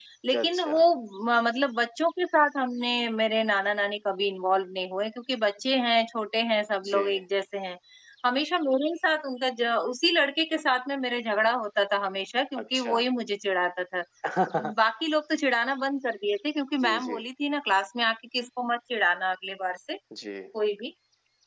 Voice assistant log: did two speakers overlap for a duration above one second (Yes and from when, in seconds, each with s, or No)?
No